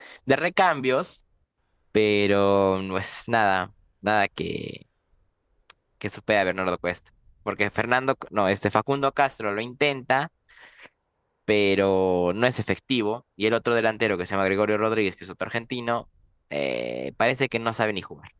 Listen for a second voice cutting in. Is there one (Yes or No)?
No